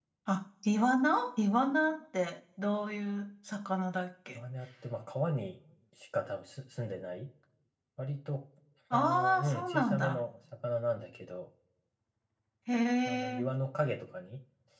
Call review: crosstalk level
present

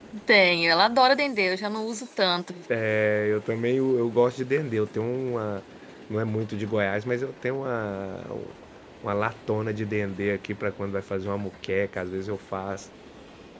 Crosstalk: none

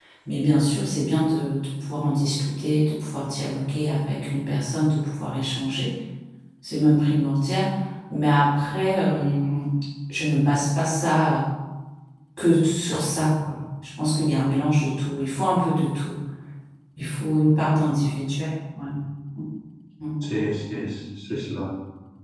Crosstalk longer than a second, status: none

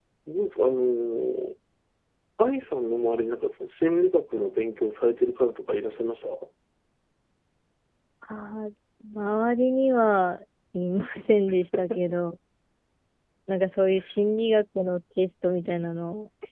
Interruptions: none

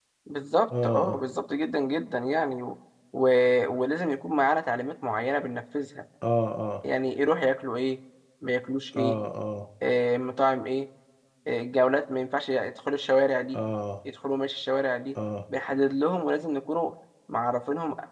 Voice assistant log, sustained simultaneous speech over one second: none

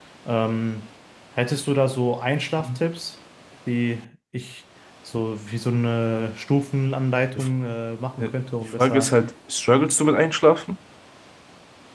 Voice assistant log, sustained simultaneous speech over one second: none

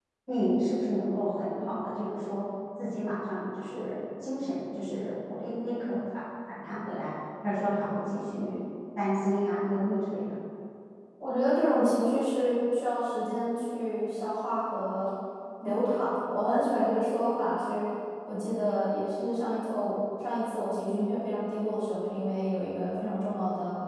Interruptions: none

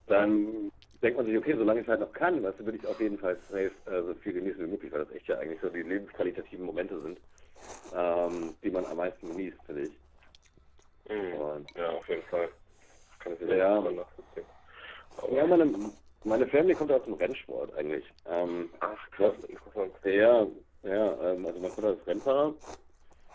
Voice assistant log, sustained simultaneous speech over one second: none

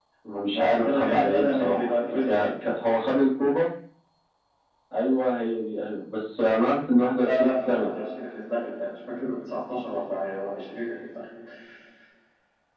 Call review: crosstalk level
present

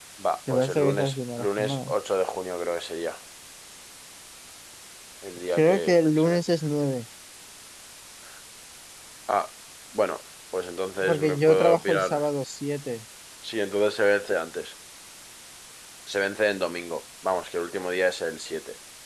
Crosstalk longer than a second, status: present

